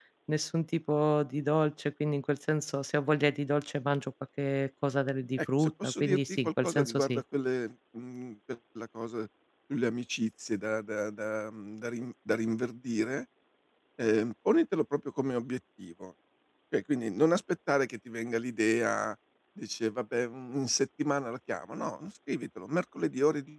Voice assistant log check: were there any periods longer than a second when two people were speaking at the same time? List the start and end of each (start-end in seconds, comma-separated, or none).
5.4-7.2